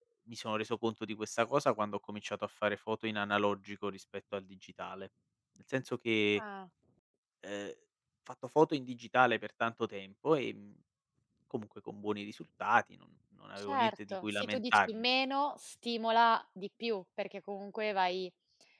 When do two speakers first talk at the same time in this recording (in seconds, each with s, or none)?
13.6 s